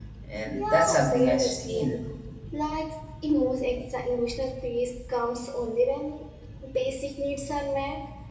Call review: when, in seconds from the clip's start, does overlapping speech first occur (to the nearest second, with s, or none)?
1 s